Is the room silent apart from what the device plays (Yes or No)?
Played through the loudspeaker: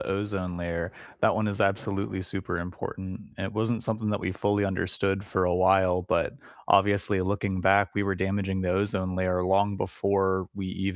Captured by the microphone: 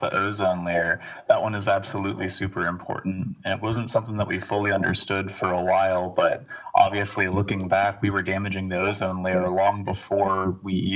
Yes